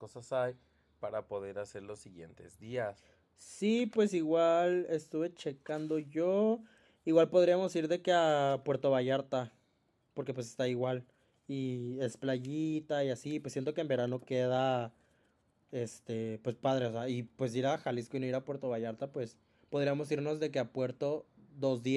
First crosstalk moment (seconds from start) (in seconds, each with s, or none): none